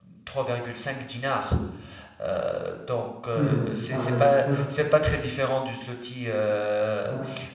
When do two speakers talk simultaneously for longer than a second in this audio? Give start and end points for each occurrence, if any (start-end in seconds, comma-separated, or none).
3.4-4.6